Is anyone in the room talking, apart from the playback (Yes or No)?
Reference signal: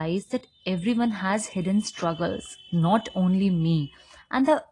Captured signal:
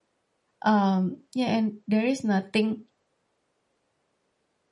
Yes